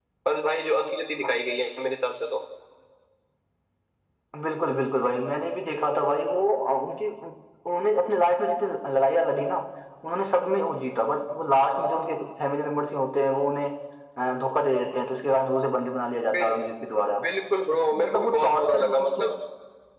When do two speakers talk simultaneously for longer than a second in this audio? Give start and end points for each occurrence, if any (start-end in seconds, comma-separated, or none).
17.7-19.3